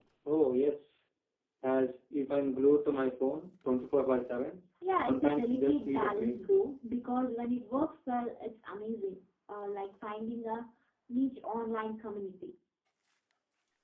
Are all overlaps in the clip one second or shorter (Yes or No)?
No